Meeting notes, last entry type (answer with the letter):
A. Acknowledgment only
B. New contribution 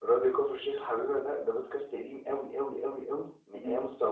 A